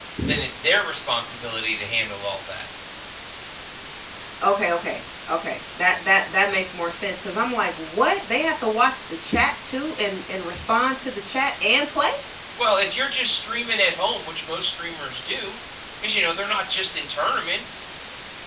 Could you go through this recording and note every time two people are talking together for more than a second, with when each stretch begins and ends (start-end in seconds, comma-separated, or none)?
none